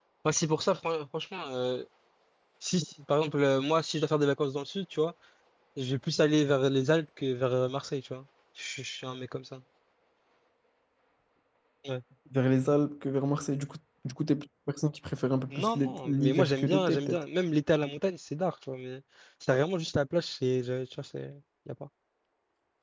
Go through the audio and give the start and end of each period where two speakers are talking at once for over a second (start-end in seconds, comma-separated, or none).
15.5-17.2